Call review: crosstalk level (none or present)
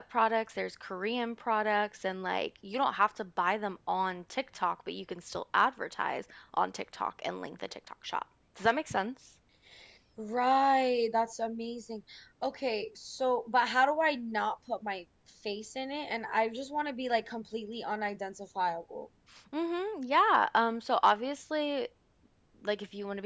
none